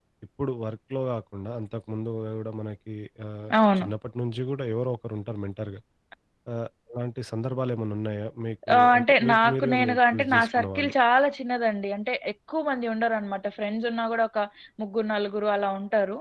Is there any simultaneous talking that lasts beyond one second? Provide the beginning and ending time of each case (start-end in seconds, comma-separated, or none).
8.7-10.9